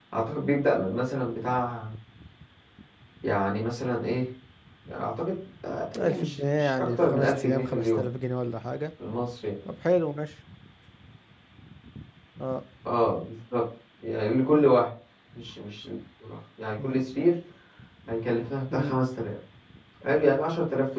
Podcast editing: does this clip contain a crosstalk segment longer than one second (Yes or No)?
Yes